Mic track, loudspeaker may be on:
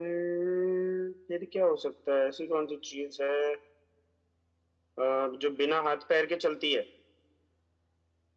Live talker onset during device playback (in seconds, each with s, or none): none